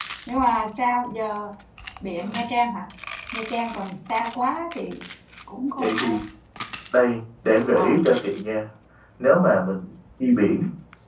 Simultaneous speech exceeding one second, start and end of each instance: none

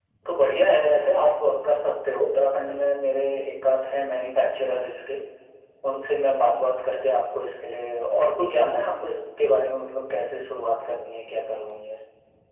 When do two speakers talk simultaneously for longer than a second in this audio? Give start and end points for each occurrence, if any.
none

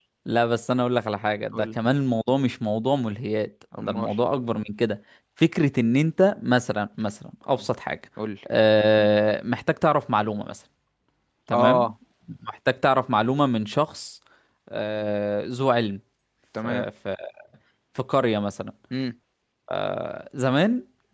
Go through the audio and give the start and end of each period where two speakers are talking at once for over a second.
none

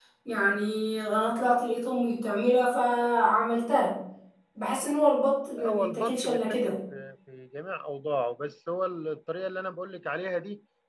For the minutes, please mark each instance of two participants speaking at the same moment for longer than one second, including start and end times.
5.6-6.8

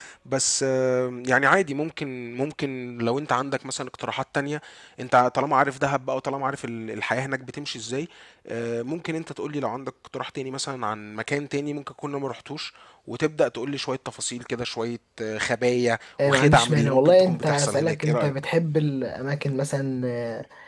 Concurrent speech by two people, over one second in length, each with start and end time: 16.2-18.3

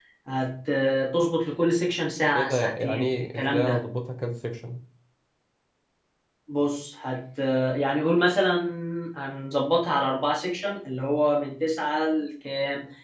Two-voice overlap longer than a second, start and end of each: 2.4-3.8

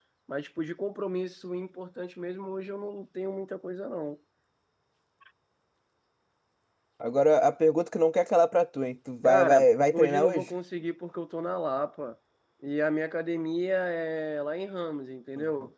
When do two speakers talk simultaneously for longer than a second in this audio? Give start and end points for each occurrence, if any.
9.2-10.5

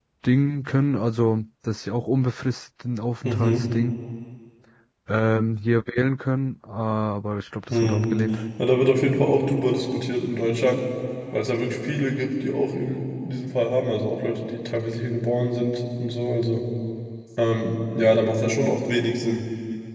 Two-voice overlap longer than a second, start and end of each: none

